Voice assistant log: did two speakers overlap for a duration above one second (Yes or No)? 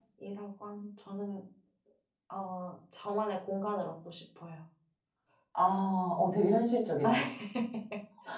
No